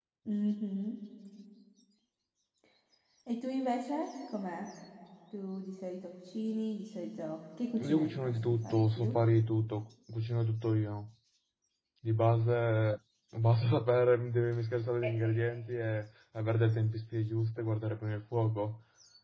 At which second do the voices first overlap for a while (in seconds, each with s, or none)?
7.8 s